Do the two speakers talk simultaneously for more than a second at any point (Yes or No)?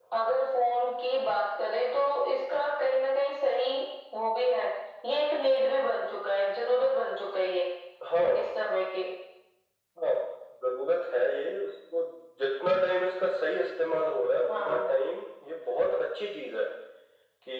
No